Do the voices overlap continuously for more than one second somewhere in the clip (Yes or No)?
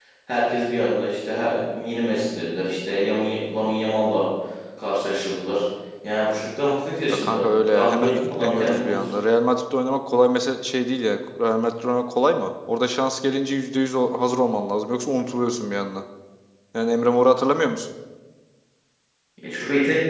Yes